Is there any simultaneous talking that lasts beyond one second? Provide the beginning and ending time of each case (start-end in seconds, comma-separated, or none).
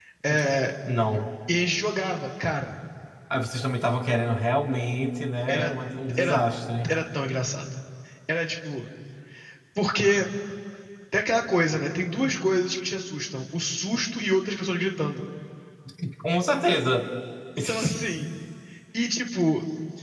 none